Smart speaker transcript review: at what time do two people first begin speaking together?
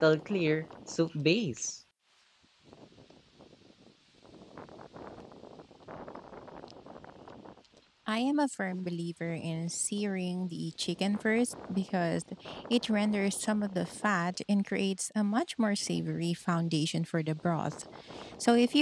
none

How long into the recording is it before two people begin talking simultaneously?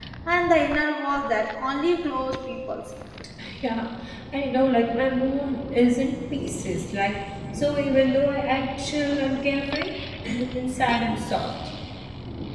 none

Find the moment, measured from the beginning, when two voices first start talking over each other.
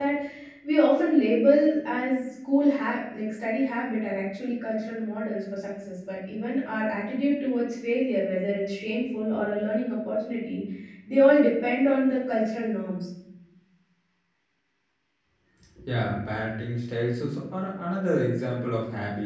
none

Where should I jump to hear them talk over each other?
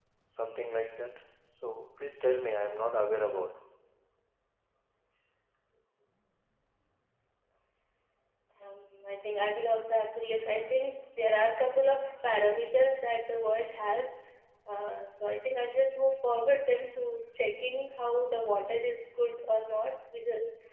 none

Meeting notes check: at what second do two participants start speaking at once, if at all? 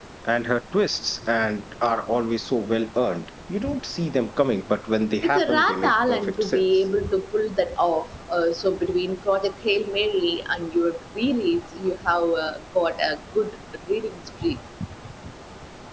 5 s

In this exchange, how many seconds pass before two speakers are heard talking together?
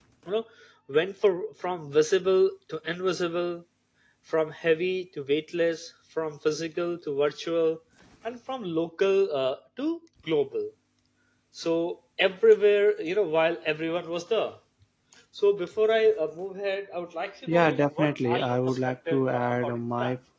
17 s

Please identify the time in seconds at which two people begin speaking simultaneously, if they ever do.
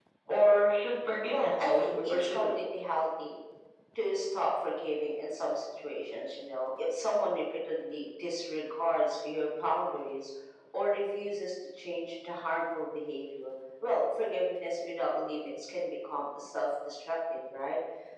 1 s

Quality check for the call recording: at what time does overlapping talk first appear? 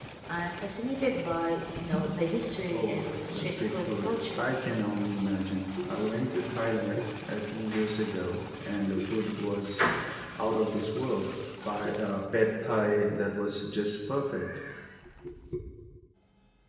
3 s

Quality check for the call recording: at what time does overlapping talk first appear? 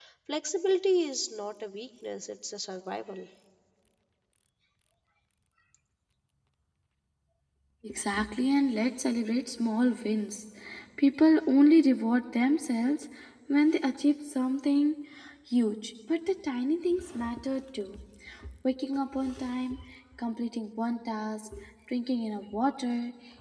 none

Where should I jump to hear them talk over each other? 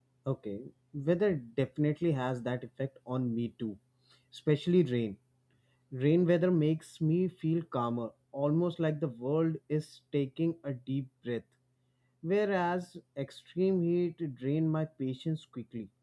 none

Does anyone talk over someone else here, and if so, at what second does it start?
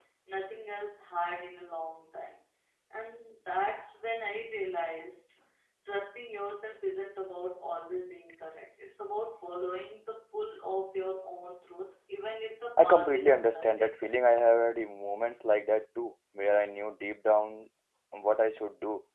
13 s

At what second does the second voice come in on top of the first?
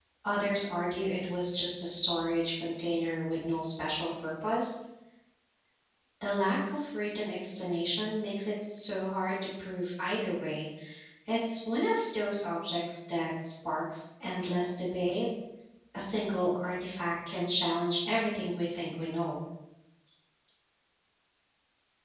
none

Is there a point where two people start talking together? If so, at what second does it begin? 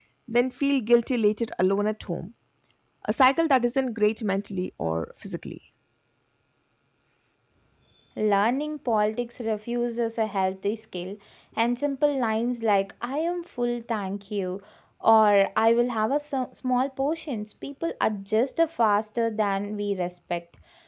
none

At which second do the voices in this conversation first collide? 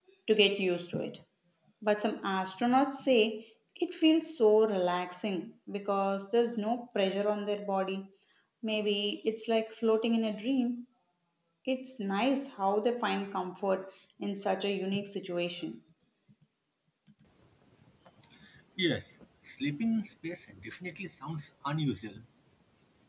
none

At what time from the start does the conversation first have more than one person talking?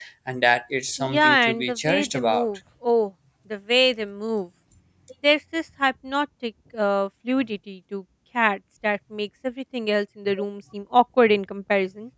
1 s

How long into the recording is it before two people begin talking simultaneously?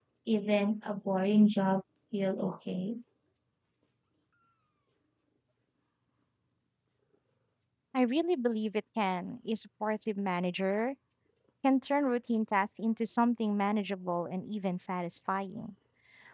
none

